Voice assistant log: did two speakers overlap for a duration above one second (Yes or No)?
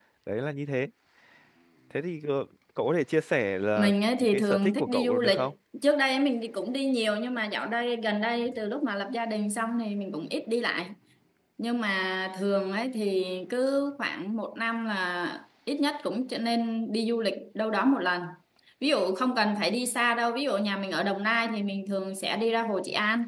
Yes